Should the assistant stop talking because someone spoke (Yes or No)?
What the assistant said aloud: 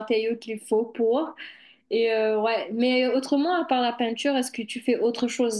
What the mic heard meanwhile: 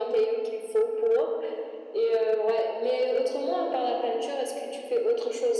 No